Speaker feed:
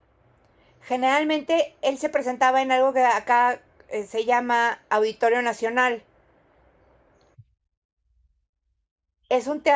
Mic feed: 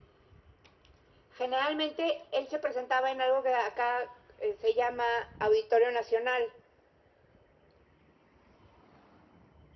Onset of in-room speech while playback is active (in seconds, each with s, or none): none